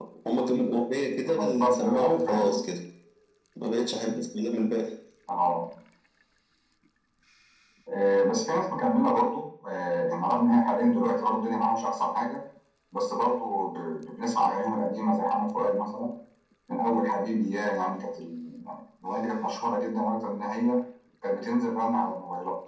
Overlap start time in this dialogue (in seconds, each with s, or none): 1.3 s